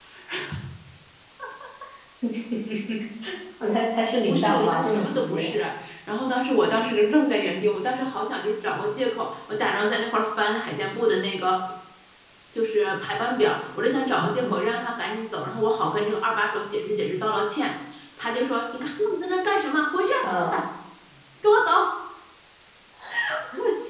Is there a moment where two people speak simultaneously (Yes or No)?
Yes